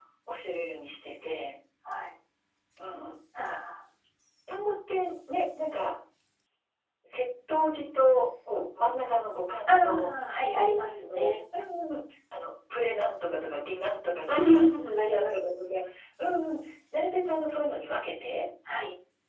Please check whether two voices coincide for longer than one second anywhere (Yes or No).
Yes